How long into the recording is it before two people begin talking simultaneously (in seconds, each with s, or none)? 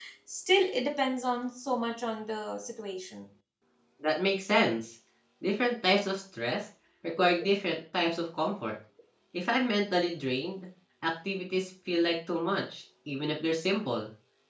none